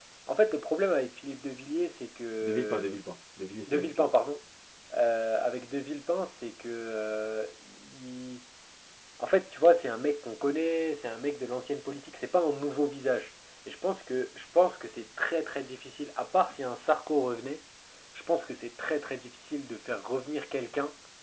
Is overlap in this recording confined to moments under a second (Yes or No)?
Yes